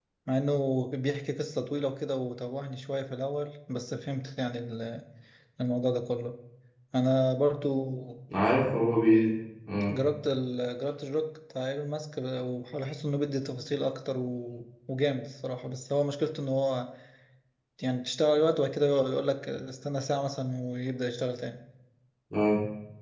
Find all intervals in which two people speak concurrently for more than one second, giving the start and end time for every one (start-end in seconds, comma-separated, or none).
none